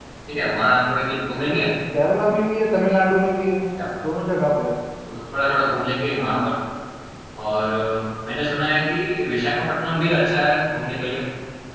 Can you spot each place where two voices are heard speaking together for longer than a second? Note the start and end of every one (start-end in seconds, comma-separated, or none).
none